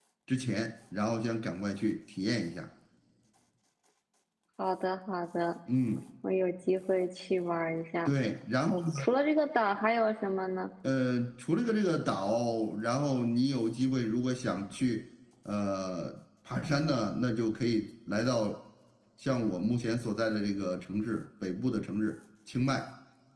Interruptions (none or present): none